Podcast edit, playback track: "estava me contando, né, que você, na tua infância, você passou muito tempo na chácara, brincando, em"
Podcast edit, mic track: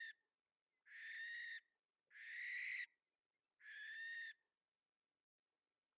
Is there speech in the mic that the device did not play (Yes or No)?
No